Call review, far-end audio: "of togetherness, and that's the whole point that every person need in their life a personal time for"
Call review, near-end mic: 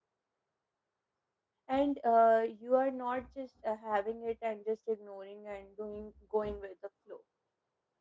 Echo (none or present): none